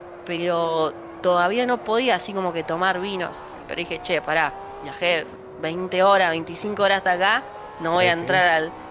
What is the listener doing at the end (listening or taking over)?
listening